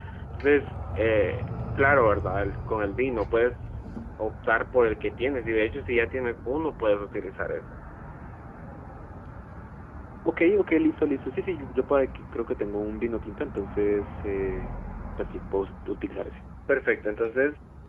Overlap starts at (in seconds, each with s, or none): none